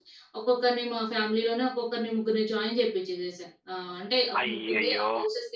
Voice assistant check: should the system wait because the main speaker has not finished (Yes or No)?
Yes